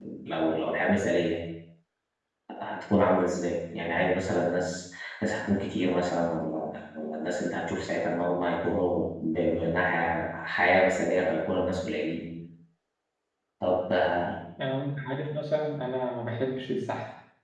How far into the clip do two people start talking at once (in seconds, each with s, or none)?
none